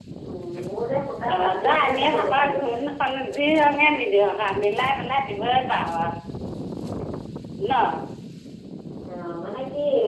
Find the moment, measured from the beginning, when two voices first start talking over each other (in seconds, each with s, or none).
1.3 s